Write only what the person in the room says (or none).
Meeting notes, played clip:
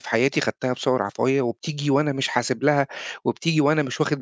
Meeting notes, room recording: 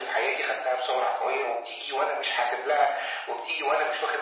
none